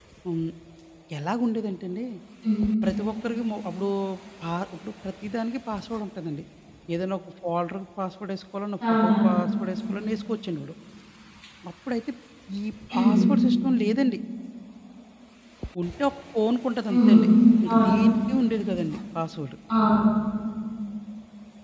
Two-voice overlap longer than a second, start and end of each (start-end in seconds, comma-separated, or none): none